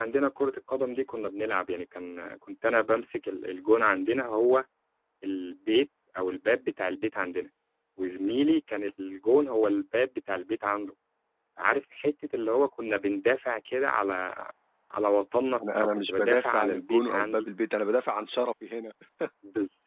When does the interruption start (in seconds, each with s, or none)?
15.8 s